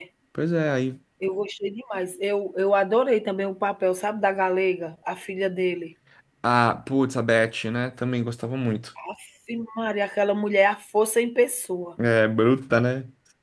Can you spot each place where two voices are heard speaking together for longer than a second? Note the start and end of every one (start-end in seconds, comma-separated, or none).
none